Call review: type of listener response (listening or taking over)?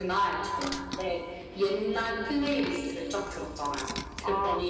listening